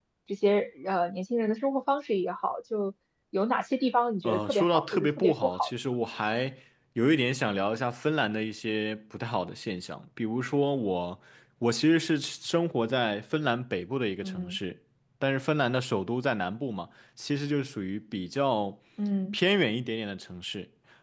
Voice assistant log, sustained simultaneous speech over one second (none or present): present